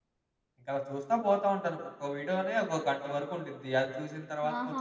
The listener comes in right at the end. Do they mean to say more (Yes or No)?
Yes